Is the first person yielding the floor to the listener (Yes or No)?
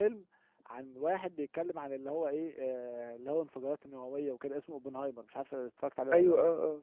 Yes